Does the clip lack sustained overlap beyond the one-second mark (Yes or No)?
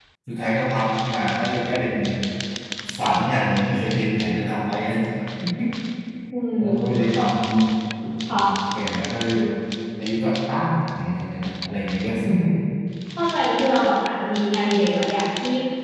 Yes